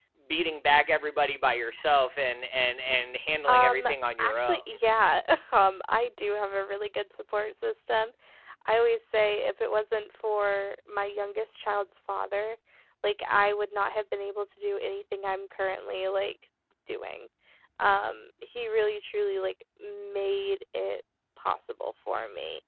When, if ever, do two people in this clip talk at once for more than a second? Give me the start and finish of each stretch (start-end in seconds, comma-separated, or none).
3.5-4.8